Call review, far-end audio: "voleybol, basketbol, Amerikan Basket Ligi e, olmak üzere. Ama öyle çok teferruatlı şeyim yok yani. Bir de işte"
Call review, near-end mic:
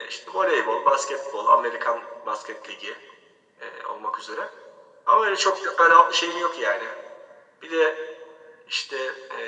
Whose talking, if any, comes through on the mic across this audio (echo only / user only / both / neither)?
echo only